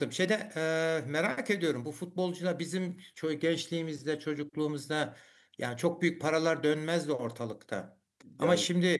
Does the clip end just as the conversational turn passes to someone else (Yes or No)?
No